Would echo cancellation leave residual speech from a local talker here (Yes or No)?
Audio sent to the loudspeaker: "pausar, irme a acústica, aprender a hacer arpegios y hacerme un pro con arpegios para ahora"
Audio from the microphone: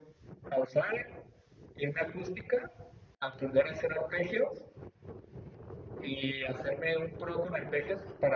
No